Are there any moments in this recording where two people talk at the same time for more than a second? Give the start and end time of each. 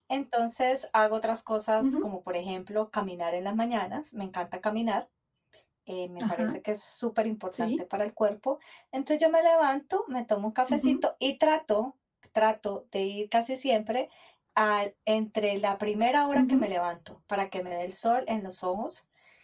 none

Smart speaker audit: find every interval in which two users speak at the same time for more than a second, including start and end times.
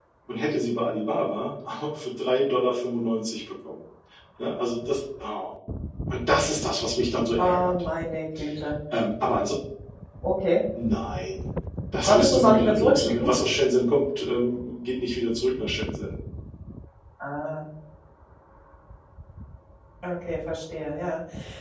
12.0-13.3

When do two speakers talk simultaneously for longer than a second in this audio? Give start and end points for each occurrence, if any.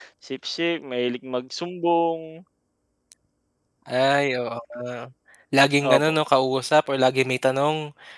none

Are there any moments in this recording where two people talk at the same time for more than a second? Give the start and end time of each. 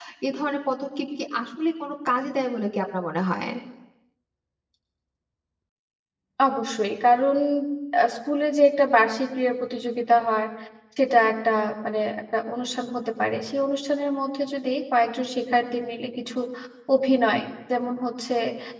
none

